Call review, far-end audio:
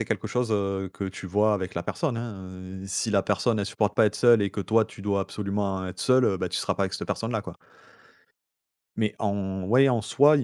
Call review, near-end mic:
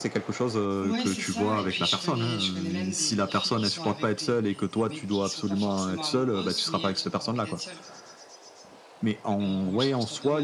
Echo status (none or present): present